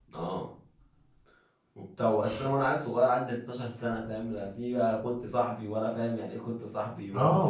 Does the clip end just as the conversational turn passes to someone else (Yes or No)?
Yes